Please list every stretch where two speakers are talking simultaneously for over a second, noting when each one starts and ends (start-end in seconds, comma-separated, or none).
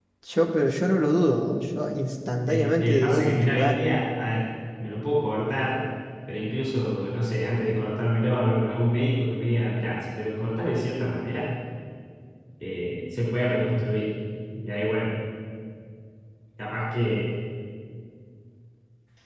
2.5-3.8